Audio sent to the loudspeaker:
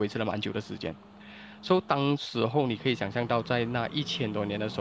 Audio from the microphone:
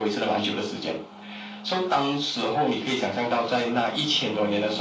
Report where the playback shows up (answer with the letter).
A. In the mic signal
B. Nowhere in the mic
A